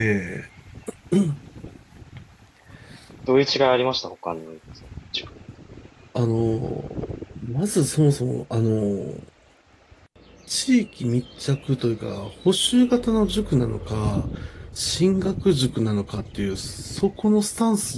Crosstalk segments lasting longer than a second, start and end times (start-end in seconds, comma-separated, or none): none